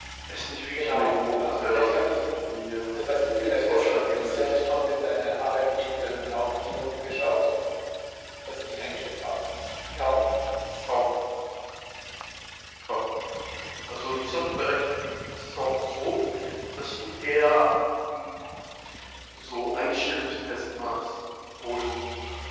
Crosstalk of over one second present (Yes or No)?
Yes